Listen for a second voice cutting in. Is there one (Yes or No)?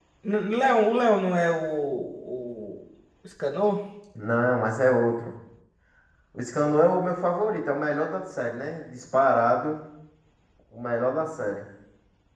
No